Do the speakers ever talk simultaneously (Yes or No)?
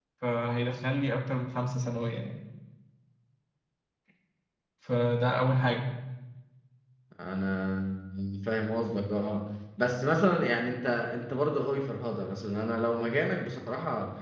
No